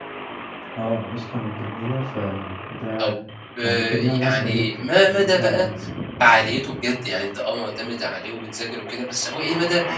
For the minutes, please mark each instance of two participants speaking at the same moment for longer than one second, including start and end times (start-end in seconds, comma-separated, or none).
3.6-5.4